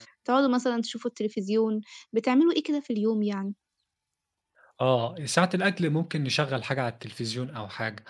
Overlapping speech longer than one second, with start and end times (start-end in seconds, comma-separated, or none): none